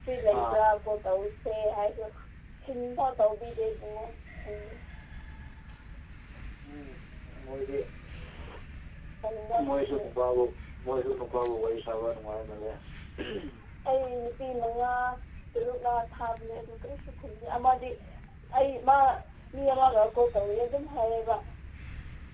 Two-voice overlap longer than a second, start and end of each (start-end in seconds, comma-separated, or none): none